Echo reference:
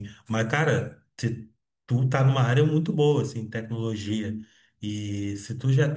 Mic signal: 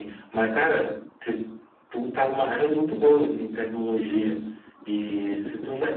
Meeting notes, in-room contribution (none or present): none